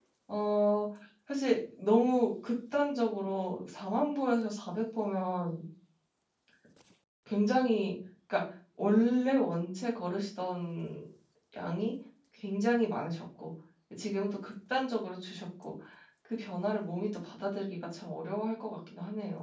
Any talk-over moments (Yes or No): No